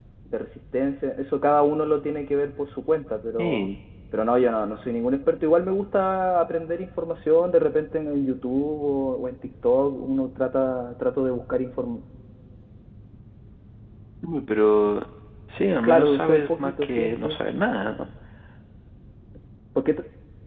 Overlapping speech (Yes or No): Yes